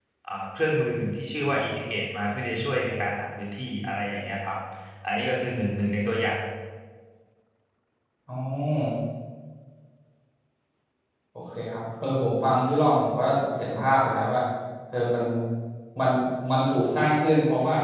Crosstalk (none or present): none